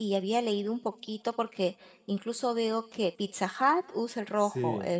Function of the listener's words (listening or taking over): listening